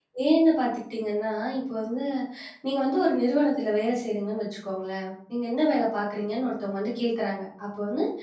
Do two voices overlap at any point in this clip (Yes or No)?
No